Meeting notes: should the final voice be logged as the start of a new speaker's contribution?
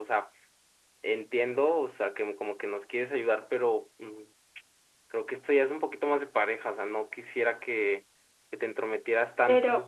Yes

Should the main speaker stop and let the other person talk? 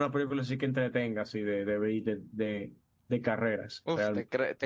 Yes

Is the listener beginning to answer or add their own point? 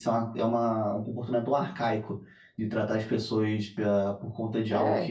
No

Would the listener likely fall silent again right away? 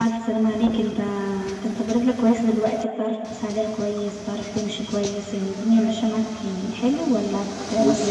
No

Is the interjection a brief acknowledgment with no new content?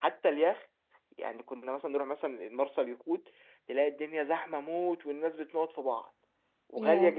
Yes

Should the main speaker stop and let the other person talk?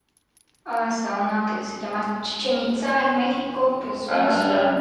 Yes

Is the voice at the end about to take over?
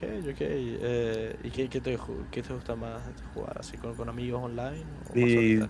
Yes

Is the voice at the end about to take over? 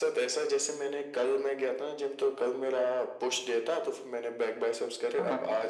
No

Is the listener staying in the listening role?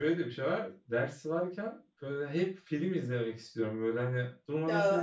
Yes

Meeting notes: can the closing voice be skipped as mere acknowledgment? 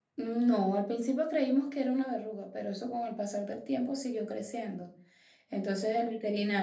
Yes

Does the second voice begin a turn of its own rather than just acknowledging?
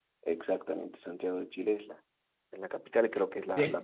No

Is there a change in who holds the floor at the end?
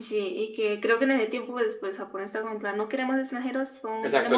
Yes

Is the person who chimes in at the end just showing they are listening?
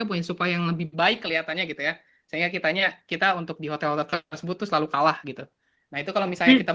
Yes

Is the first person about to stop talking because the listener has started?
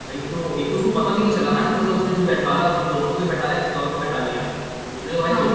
No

